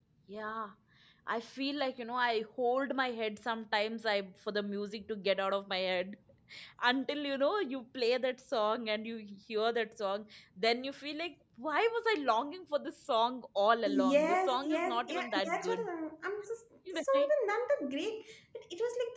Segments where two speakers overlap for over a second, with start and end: 13.9-15.9

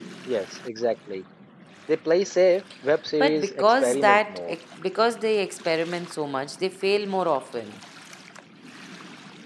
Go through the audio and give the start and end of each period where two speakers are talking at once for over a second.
3.2-4.4

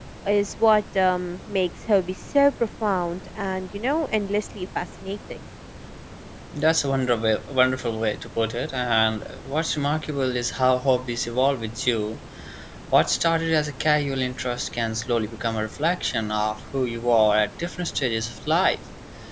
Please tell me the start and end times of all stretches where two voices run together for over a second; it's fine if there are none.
none

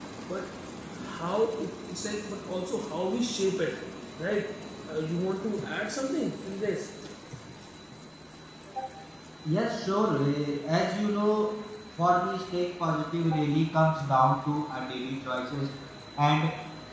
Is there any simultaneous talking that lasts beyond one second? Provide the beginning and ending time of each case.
none

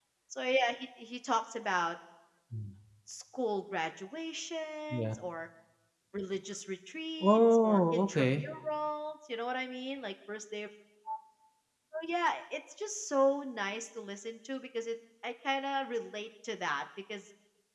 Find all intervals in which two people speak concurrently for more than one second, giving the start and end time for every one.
7.2-8.4

